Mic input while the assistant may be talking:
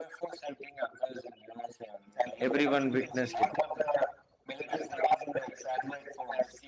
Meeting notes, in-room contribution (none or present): present